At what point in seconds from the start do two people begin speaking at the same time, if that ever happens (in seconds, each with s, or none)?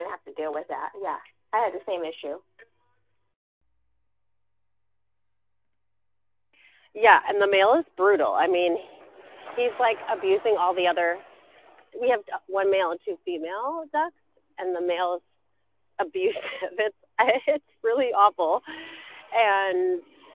none